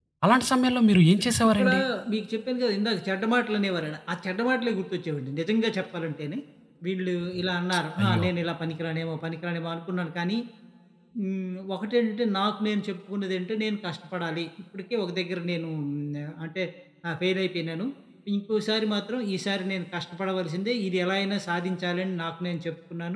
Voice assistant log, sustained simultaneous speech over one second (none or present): none